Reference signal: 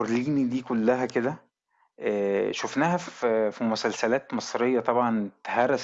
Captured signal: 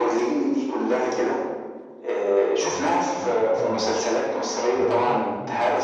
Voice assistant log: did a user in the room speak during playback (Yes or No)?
Yes